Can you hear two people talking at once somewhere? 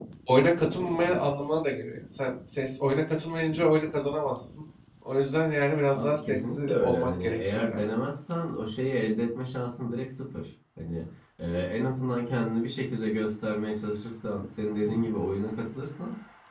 Yes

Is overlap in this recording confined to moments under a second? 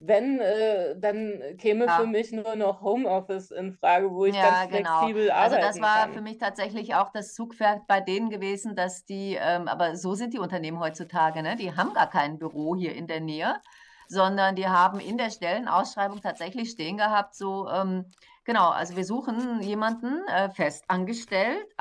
No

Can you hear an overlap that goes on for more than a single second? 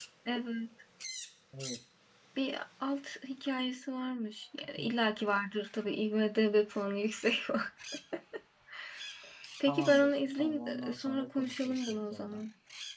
Yes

